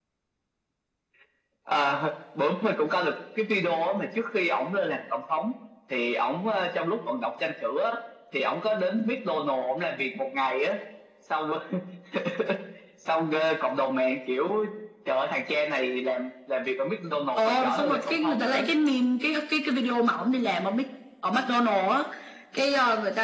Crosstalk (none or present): present